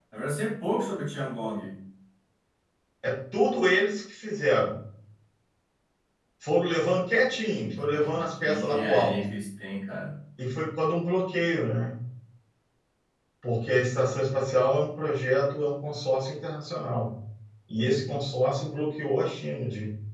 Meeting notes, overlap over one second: present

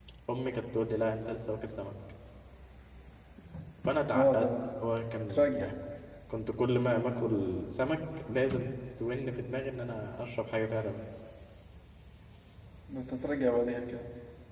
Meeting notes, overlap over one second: none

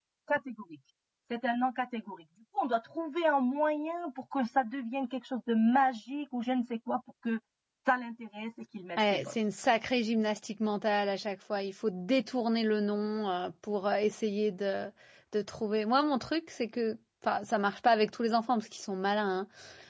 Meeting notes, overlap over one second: none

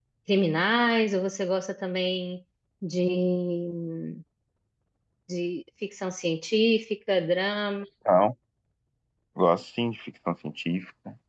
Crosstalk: none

